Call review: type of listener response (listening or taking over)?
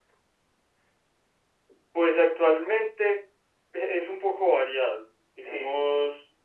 listening